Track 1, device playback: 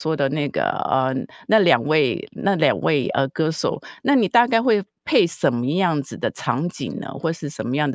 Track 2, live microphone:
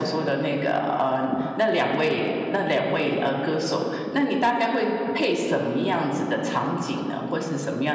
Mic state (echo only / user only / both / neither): echo only